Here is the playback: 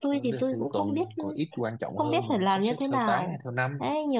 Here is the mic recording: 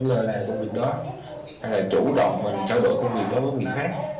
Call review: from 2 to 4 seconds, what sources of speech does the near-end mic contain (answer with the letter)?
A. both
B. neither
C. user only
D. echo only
A